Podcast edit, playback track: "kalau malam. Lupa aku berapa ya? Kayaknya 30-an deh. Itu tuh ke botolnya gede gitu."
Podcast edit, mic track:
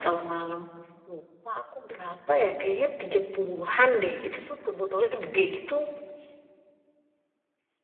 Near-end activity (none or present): none